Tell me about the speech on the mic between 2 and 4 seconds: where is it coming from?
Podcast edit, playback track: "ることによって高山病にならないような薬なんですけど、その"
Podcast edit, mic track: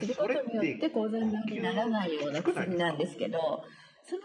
both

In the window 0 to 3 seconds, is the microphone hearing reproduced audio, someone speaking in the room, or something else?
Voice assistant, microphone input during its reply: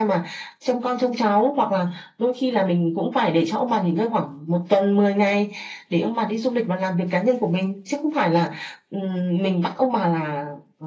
echo only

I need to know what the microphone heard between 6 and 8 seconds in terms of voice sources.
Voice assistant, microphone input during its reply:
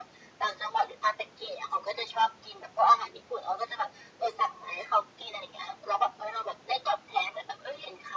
echo only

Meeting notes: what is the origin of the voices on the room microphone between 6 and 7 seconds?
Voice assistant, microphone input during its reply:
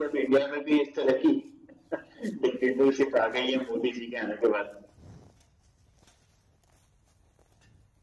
neither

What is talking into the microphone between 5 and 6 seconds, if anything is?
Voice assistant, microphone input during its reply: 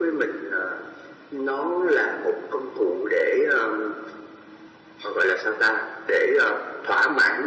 echo only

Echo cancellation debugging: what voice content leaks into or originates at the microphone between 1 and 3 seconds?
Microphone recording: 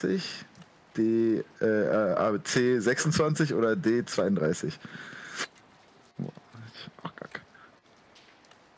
echo only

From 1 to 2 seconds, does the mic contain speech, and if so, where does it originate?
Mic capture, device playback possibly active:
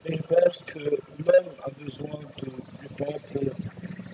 echo only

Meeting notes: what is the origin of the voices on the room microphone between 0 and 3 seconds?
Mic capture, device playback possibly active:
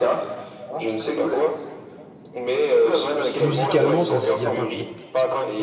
echo only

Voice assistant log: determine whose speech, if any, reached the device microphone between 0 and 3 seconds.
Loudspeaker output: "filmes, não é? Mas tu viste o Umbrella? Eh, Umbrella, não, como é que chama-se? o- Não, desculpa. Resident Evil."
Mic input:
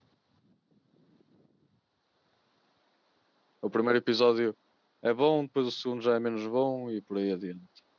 neither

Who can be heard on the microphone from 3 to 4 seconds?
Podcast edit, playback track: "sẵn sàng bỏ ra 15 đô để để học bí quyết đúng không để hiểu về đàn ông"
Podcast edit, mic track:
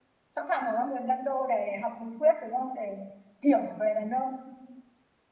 echo only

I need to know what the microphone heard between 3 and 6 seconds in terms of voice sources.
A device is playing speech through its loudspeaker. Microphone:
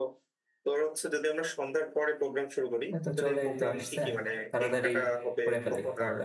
both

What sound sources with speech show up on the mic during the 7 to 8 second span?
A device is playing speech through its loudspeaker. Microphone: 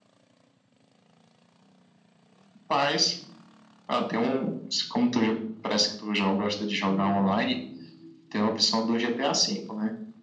both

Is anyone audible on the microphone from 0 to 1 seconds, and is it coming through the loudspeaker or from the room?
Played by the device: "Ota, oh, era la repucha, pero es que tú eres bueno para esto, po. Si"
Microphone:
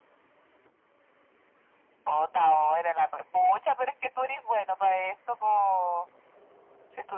neither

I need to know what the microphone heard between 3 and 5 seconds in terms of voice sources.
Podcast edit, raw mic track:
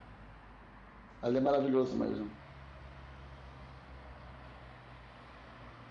neither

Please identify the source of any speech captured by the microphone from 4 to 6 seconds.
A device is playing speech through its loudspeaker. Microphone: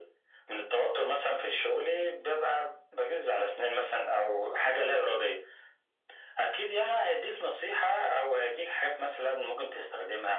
echo only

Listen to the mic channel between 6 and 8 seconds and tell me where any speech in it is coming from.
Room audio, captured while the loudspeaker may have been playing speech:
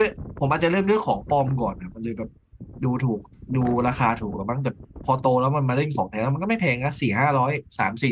user only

